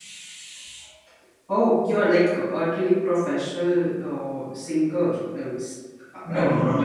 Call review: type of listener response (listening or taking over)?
taking over